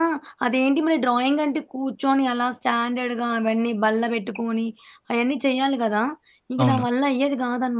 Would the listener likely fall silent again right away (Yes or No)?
Yes